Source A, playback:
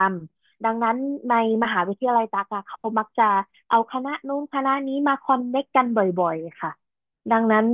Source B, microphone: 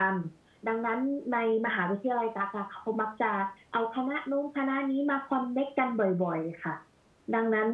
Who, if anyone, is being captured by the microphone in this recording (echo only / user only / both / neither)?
echo only